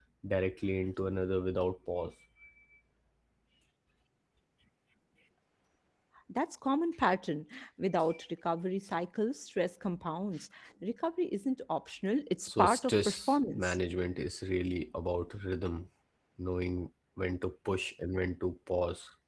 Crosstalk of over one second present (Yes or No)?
Yes